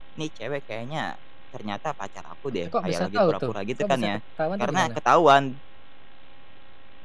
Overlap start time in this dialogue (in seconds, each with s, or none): 2.6 s